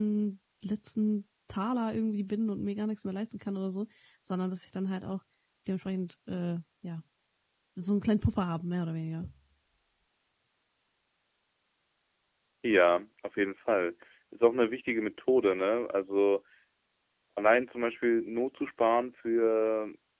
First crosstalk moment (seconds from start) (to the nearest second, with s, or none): none